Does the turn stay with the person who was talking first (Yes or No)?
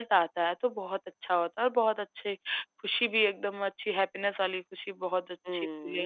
No